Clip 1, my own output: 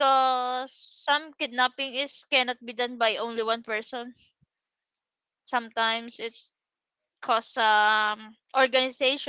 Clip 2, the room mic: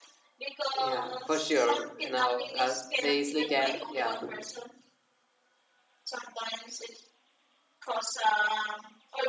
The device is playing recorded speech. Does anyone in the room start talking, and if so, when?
0.7 s

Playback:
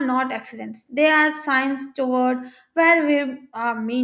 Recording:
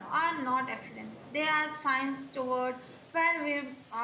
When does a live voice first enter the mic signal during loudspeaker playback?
none

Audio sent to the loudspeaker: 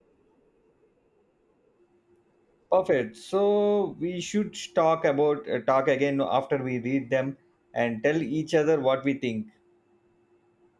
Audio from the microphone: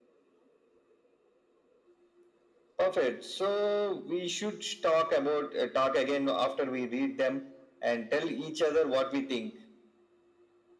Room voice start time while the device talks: none

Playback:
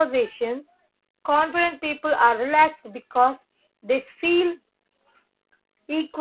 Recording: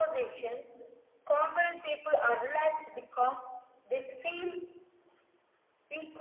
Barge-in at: none

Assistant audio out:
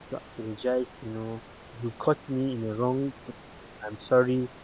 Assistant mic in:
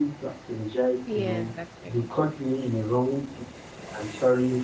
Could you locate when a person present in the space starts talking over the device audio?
1.1 s

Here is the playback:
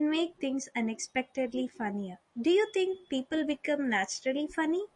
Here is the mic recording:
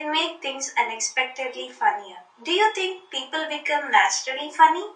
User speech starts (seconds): none

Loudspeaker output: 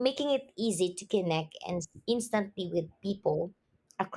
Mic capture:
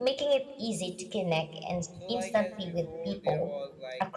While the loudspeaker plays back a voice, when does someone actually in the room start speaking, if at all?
1.9 s

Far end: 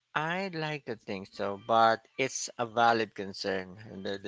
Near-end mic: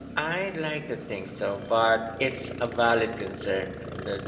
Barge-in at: none

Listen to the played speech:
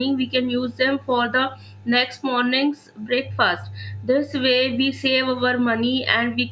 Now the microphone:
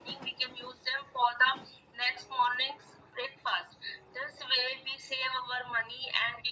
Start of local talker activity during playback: none

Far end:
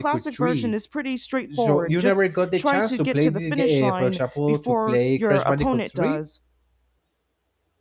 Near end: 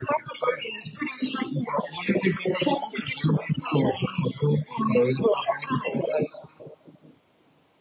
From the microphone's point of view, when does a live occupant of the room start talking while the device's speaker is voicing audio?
none

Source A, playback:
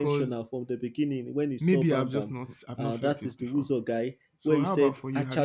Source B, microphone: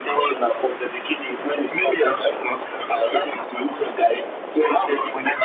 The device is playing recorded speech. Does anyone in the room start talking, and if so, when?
none

